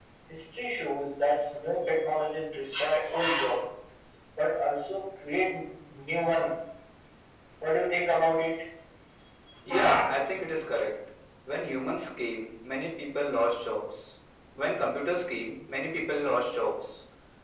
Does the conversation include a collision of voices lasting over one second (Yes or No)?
No